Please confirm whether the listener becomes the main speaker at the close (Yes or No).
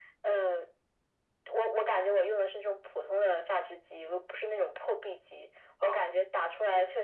No